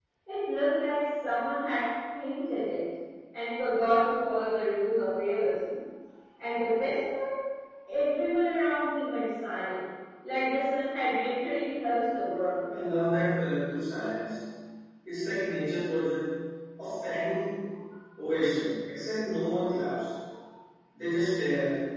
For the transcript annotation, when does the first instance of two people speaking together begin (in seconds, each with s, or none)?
none